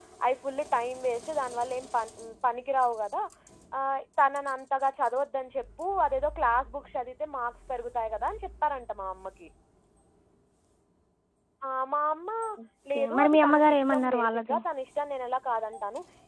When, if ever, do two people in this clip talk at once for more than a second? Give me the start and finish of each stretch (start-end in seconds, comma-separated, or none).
12.9-14.6